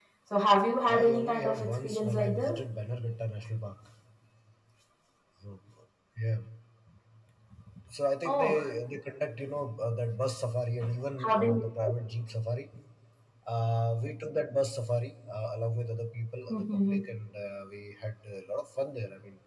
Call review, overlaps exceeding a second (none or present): present